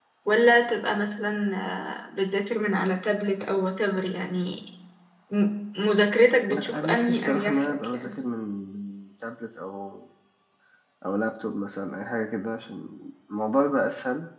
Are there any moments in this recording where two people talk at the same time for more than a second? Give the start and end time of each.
6.5-8.1

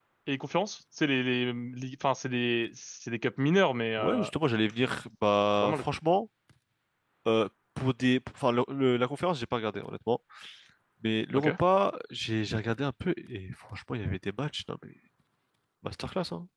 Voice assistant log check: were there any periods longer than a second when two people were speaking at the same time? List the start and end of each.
none

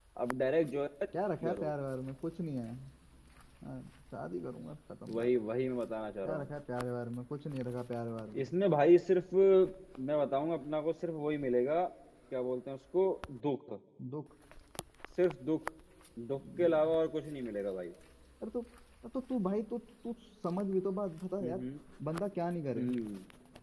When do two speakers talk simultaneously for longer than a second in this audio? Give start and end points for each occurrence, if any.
none

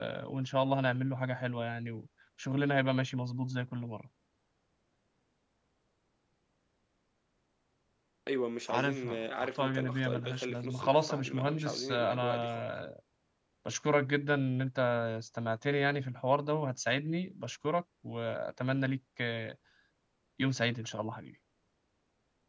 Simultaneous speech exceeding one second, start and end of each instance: 8.7-12.7

